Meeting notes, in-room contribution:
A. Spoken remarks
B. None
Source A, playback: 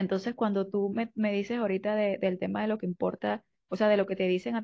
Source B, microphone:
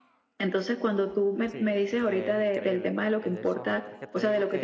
A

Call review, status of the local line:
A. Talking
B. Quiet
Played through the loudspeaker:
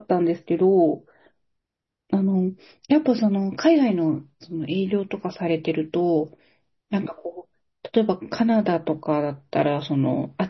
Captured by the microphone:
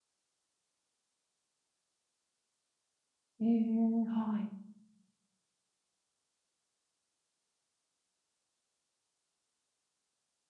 A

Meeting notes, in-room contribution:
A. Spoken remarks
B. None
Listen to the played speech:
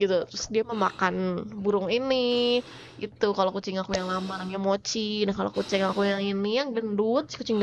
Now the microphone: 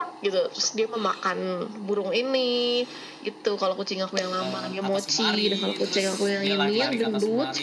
A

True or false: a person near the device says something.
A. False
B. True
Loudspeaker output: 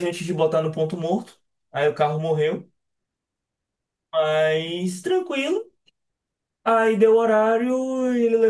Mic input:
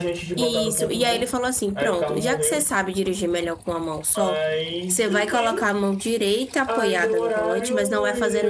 B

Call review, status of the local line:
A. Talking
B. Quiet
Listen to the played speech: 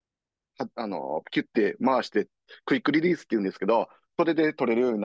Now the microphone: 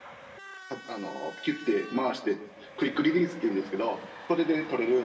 B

